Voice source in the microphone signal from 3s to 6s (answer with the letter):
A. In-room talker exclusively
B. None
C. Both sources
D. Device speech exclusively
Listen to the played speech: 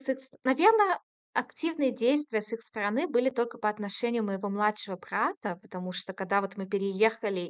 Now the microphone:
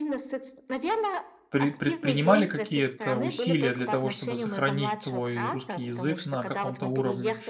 C